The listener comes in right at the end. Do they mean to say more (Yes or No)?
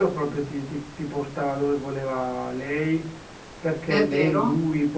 No